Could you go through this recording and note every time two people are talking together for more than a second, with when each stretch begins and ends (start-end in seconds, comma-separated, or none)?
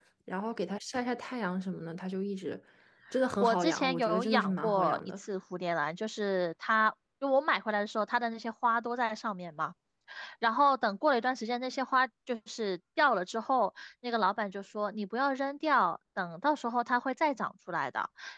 3.4-5.0